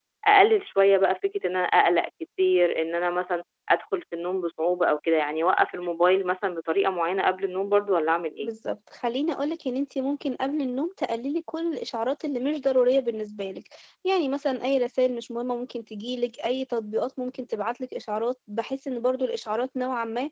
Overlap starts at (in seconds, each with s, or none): none